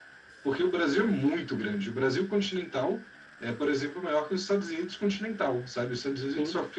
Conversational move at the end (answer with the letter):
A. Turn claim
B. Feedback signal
B